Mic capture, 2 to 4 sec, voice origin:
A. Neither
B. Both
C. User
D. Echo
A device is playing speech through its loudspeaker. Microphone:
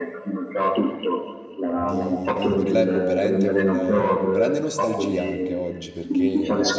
B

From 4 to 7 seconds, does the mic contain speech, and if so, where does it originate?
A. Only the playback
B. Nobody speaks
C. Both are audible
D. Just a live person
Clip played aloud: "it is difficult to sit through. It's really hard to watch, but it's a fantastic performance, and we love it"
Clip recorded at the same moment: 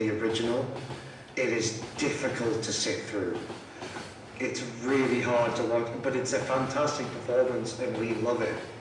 A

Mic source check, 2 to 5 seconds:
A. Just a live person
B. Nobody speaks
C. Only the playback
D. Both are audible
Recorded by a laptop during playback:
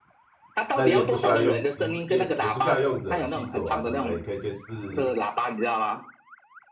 D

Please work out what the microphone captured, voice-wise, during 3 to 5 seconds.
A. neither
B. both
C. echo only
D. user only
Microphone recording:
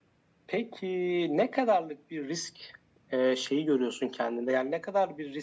C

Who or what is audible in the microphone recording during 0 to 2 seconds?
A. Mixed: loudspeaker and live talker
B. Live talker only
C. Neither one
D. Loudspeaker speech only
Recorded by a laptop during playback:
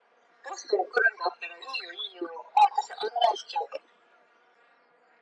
D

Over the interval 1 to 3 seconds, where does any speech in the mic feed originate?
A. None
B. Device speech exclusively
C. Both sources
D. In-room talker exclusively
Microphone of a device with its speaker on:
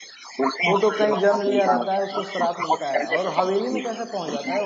C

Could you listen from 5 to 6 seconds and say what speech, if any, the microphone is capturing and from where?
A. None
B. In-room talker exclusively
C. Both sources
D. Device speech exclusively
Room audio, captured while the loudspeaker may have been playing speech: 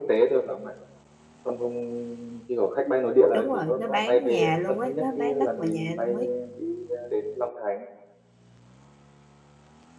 C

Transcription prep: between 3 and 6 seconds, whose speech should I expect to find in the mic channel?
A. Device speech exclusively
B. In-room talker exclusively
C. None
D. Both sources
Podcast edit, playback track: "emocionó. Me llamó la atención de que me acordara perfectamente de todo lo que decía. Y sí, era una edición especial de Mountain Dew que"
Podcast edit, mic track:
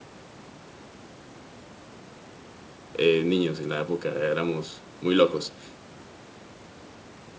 B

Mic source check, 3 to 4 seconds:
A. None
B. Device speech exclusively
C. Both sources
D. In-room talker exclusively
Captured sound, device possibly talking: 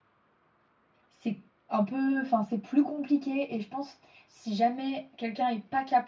D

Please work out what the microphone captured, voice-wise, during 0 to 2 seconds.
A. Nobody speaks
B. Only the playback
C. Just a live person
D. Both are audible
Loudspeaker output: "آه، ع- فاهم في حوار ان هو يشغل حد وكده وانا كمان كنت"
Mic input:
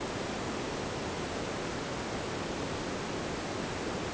A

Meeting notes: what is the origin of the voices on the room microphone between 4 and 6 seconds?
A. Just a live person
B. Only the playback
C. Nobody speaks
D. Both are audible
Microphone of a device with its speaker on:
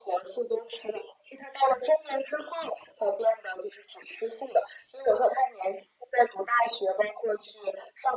B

